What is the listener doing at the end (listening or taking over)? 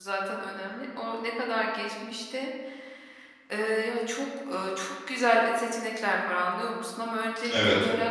listening